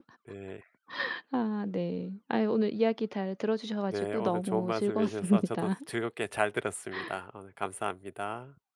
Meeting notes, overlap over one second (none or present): present